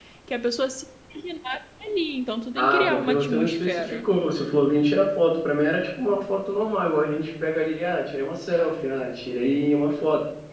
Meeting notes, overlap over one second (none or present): present